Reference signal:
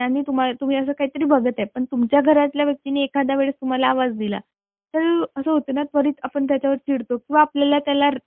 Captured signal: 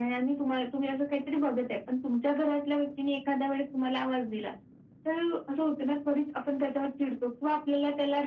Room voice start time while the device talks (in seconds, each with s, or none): none